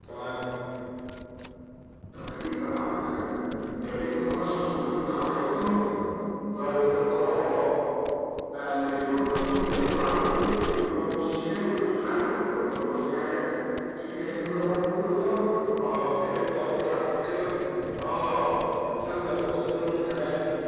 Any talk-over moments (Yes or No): No